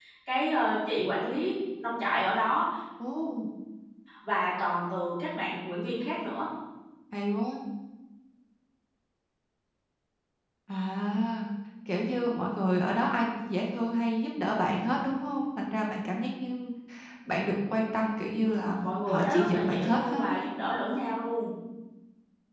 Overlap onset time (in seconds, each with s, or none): 18.4 s